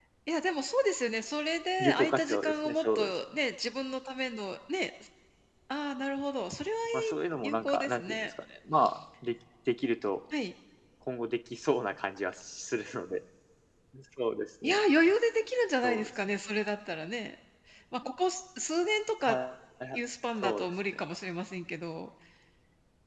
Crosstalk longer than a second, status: present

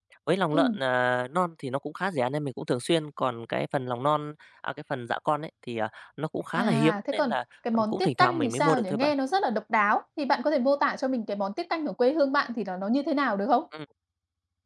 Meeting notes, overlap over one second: present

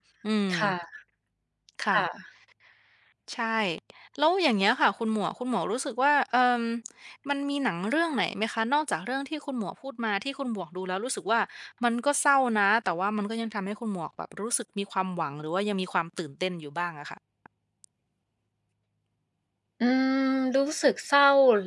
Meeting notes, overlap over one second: none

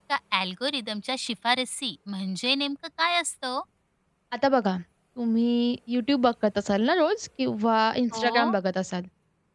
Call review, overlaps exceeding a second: none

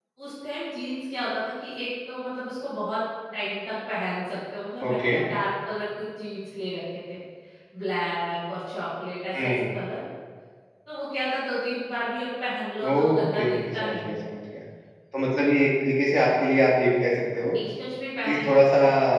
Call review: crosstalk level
present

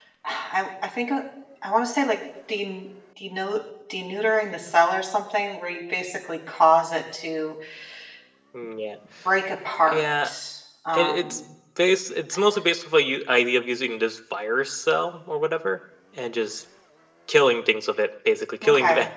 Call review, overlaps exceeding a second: none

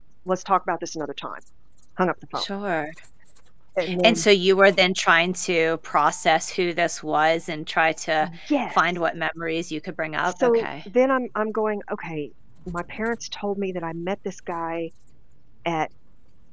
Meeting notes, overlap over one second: none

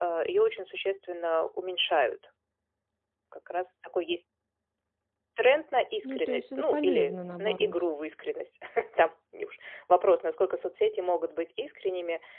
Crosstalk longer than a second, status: present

